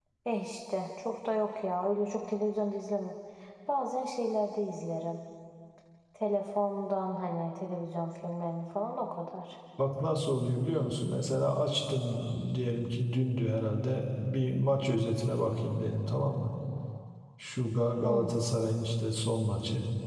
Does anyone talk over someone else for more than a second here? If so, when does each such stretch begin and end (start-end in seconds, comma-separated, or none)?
none